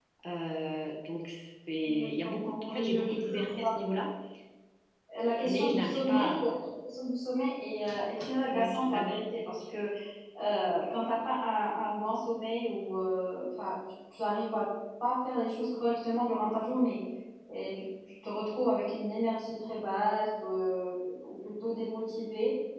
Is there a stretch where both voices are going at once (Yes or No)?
Yes